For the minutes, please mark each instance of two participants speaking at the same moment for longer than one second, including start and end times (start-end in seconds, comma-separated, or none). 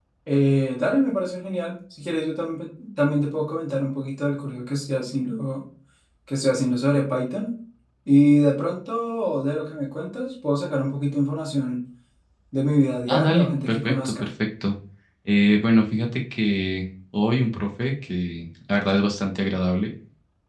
13.1-14.3